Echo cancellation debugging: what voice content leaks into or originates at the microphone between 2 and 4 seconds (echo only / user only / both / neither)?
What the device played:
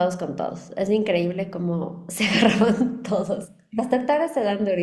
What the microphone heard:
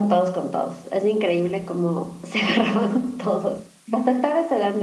echo only